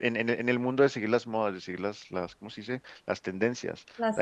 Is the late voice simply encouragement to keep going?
Yes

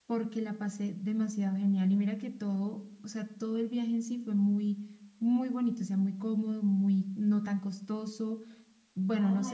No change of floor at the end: No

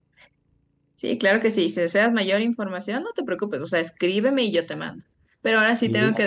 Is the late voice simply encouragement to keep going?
Yes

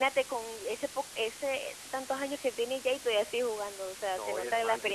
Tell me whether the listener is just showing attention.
No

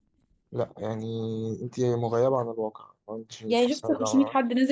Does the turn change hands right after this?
Yes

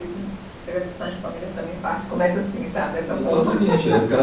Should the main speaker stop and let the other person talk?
Yes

